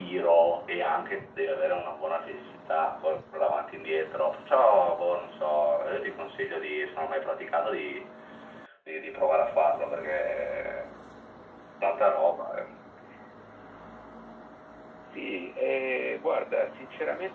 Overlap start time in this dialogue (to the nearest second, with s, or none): none